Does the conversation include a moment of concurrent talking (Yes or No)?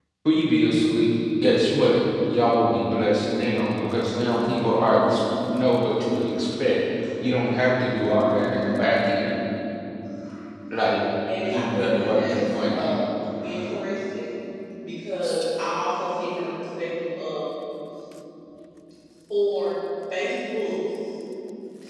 Yes